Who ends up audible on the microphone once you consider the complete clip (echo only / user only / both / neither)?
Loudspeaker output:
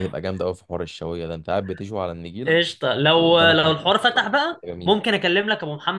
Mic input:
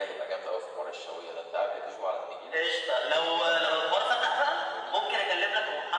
echo only